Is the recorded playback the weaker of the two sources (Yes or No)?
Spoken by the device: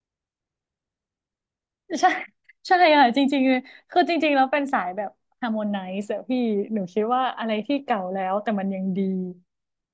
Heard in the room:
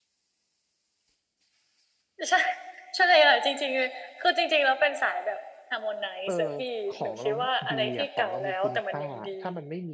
No